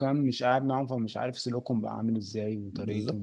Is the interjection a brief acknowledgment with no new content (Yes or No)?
Yes